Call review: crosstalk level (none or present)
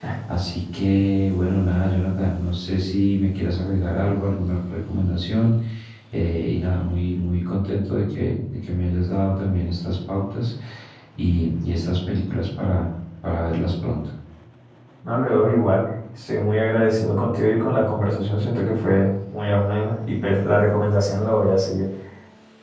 none